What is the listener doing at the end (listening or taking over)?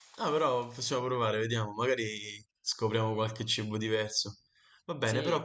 listening